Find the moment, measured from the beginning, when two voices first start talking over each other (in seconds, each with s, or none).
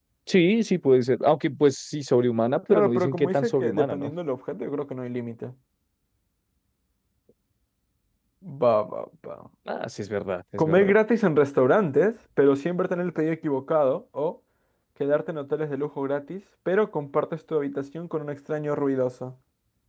2.7 s